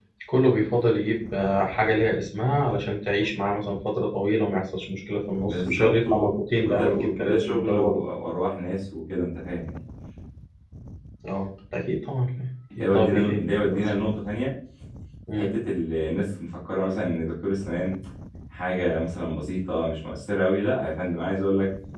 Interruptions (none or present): present